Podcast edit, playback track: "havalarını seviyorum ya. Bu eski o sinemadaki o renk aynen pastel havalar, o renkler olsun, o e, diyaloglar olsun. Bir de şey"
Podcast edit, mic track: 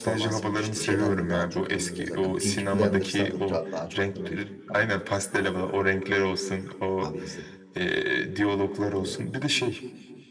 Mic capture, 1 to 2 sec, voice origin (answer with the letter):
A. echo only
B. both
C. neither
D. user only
B